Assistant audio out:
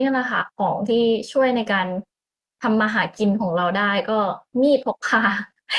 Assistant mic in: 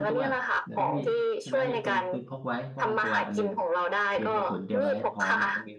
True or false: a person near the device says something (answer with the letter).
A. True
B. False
A